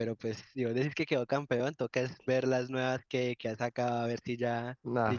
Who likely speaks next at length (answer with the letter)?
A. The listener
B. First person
A